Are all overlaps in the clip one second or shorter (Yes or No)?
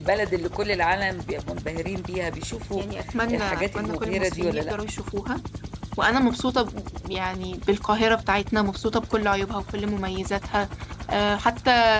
No